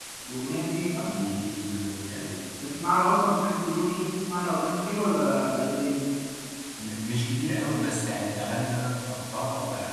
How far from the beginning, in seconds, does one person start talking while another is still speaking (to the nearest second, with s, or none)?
none